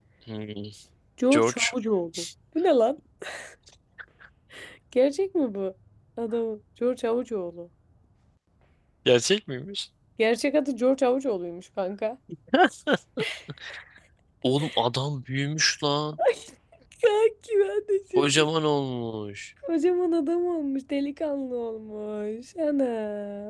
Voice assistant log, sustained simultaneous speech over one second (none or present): none